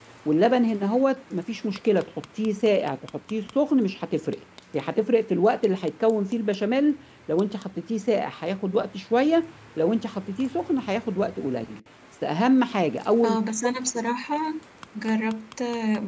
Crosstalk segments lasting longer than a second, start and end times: none

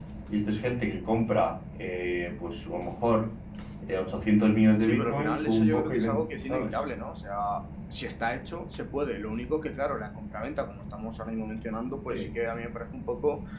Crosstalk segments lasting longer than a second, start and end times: 4.8-6.7

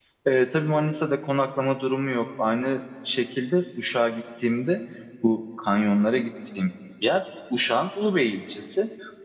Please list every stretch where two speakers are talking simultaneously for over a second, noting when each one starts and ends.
none

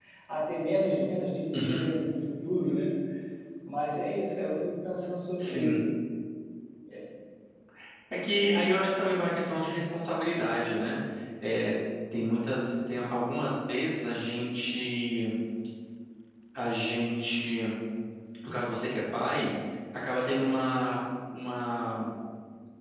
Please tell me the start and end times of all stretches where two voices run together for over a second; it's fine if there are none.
none

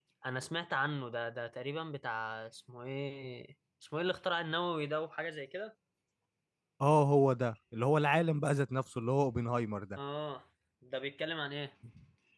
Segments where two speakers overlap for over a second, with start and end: none

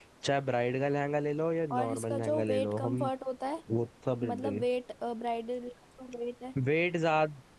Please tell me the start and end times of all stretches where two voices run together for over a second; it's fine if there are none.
1.7-3.1

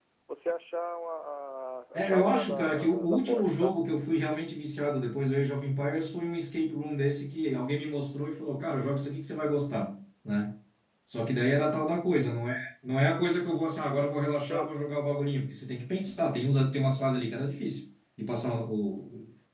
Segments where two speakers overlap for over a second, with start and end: 1.9-3.8

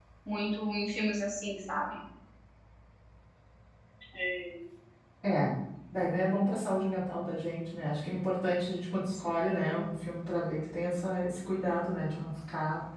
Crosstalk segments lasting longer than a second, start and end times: none

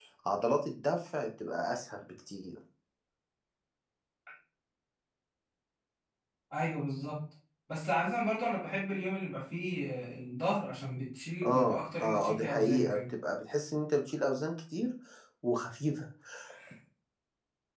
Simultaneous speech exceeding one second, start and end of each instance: 11.4-13.0

